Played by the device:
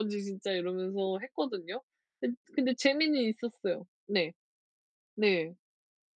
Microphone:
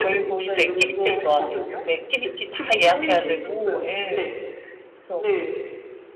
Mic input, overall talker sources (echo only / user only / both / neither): both